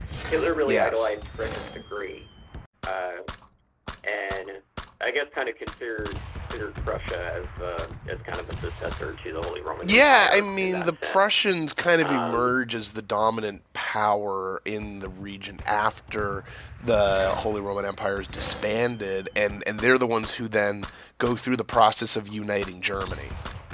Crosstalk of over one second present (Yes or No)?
Yes